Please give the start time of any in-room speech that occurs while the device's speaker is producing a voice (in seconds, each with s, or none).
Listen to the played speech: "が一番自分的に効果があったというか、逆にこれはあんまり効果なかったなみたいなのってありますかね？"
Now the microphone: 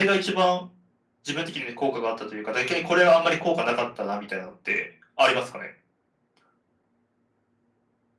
none